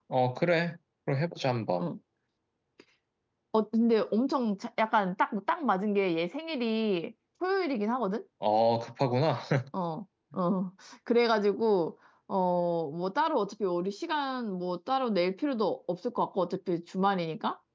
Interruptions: none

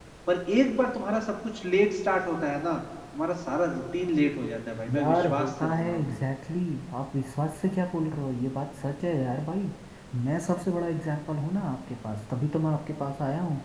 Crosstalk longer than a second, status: present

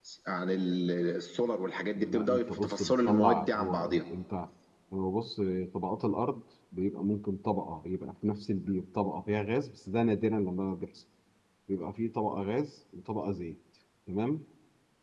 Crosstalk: present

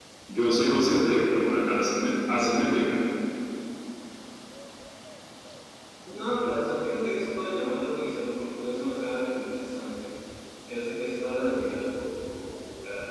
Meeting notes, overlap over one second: none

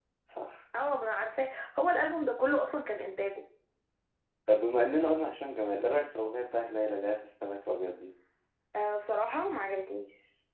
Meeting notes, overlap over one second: none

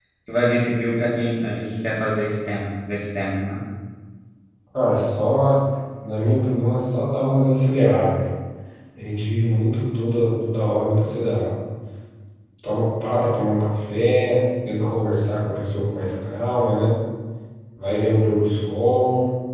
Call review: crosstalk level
none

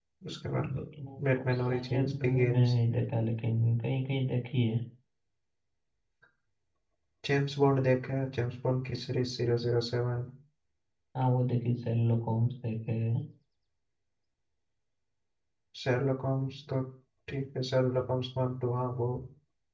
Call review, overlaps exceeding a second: present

